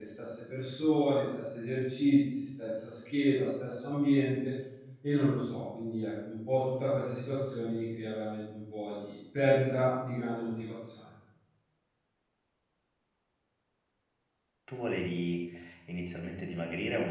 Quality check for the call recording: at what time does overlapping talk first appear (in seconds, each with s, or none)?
none